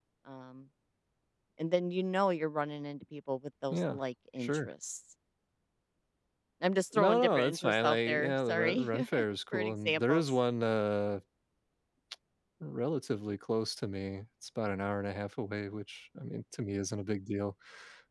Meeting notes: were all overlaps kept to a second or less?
No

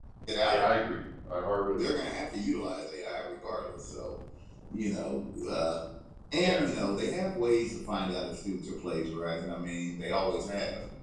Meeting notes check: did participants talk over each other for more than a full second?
No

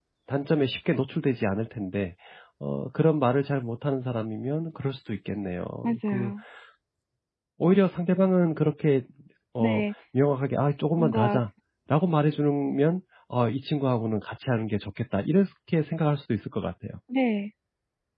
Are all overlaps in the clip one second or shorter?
Yes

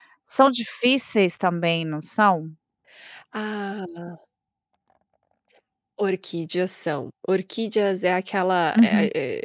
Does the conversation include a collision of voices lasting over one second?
No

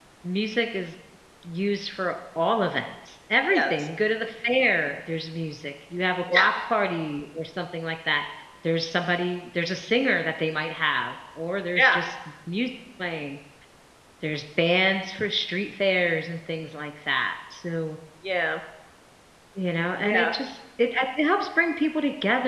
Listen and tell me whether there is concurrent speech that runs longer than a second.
No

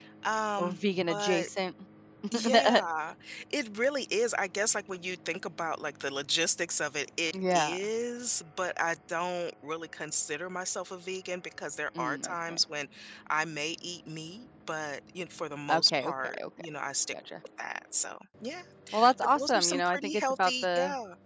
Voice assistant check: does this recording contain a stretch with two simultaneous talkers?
Yes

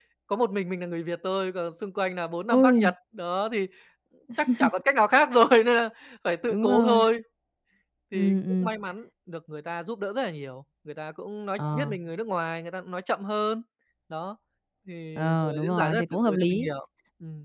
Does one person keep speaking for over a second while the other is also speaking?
Yes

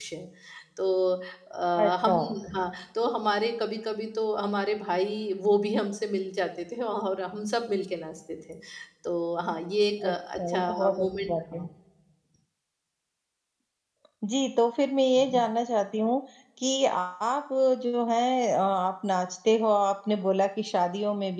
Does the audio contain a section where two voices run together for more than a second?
Yes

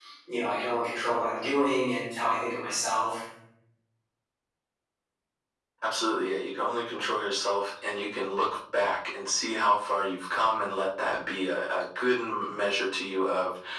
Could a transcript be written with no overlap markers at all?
Yes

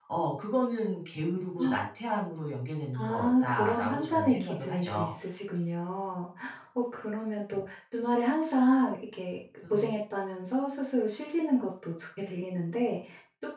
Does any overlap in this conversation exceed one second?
Yes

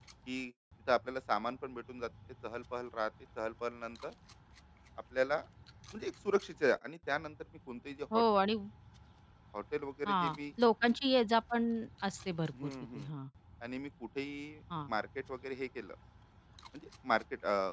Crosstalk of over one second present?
No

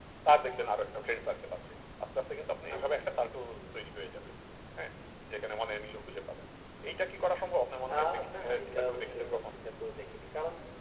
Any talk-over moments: Yes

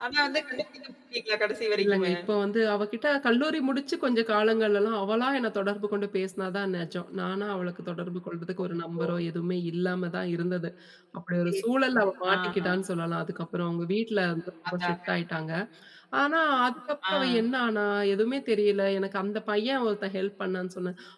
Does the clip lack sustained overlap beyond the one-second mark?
Yes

